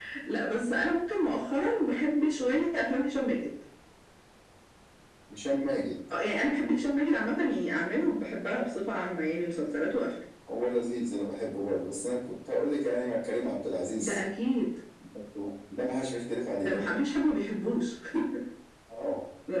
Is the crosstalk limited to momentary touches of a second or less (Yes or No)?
Yes